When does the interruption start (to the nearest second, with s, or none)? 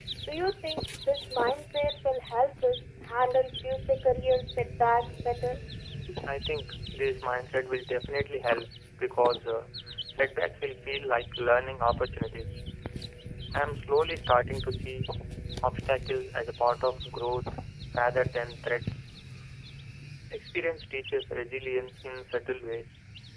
none